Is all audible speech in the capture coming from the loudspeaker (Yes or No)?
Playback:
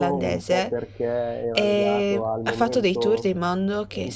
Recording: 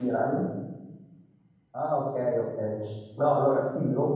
No